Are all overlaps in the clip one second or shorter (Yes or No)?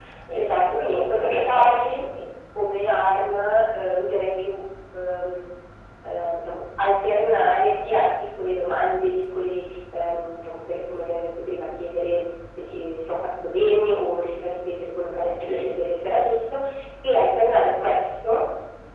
No